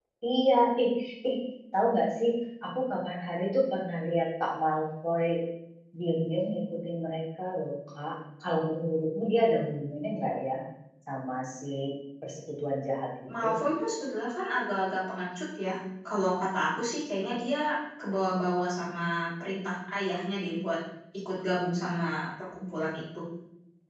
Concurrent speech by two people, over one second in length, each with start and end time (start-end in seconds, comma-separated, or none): none